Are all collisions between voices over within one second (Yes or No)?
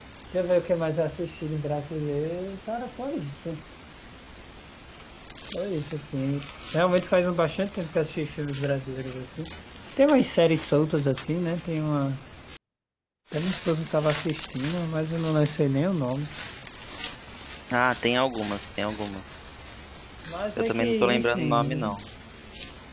No